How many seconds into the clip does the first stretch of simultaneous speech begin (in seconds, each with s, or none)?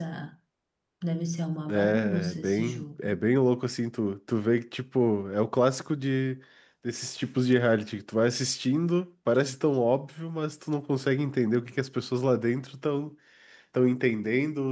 1.9 s